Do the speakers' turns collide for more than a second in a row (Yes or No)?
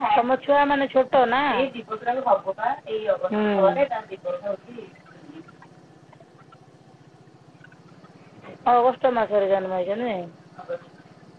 No